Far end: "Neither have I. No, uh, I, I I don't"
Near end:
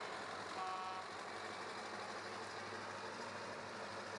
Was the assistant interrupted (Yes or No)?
No